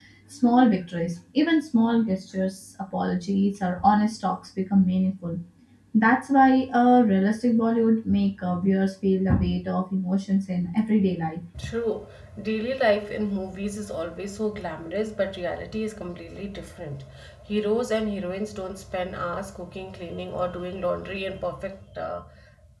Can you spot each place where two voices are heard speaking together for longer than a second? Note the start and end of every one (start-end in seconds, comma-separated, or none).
none